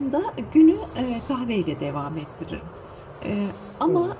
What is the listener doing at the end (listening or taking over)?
listening